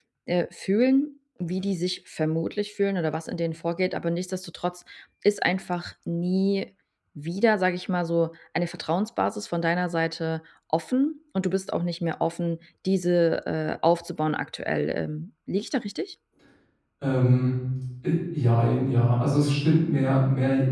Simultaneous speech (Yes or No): No